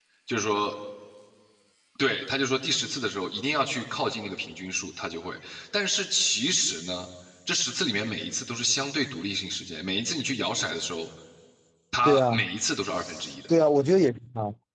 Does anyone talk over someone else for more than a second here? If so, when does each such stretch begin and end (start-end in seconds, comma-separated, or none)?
none